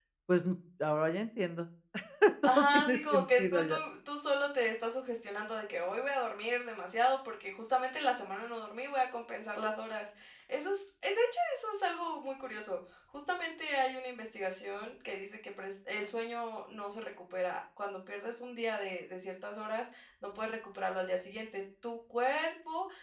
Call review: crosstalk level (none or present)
present